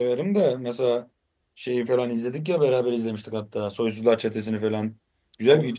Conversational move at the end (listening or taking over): listening